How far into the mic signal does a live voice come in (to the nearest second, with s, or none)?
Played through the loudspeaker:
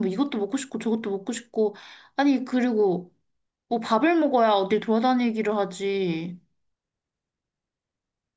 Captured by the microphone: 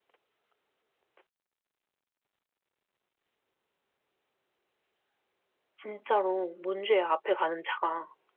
6 s